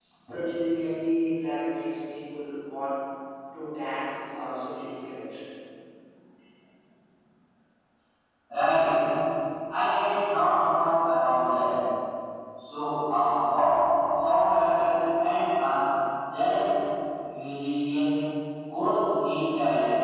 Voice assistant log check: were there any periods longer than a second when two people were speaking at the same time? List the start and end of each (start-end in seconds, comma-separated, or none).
none